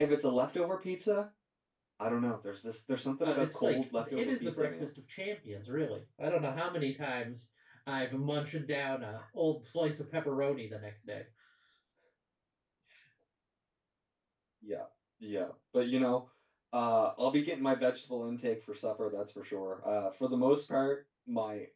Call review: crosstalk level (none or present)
present